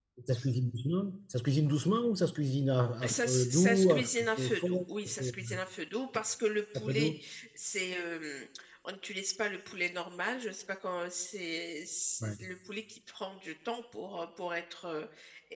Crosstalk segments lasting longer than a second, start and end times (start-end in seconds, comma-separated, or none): 3.1-5.4